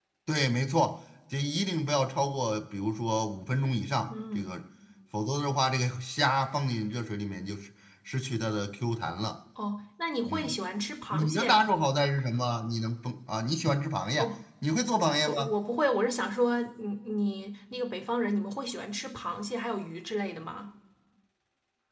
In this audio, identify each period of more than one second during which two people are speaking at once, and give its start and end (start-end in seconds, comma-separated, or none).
none